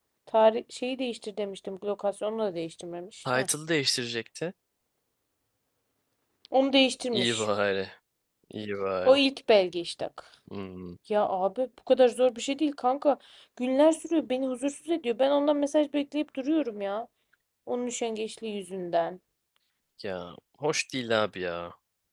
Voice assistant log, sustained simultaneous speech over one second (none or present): none